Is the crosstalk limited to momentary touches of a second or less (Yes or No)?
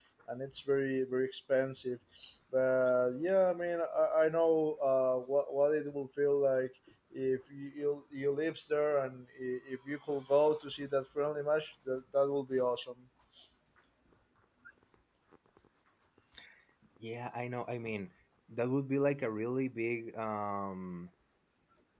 Yes